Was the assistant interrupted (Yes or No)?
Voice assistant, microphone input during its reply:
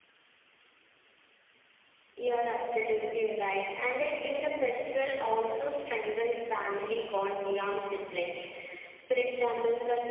No